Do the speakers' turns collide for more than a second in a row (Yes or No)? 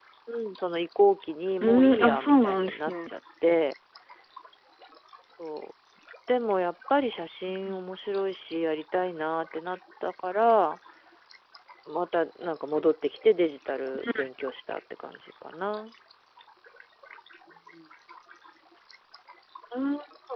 Yes